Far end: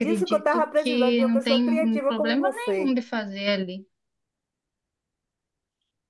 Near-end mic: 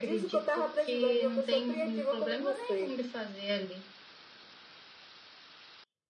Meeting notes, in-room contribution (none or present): none